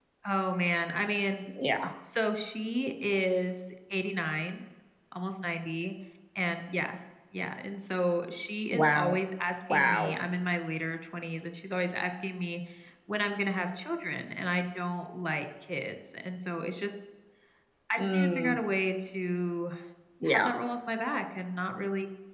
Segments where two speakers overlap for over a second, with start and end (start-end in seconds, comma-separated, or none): none